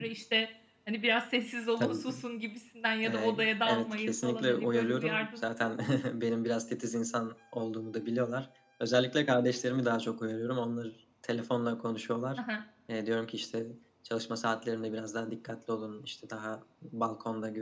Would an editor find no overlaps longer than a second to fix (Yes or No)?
No